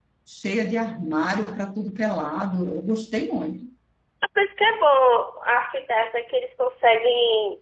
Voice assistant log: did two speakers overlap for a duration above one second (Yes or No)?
No